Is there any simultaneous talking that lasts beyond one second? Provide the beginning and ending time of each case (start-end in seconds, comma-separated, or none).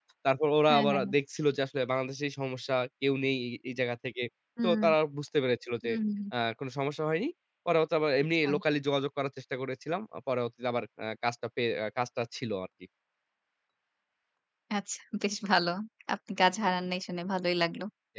none